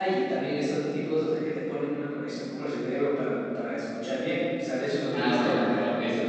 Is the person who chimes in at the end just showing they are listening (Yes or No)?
No